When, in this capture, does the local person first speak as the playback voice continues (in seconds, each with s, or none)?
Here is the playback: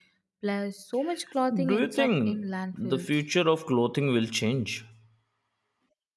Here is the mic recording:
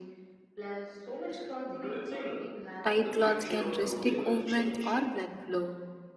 2.8 s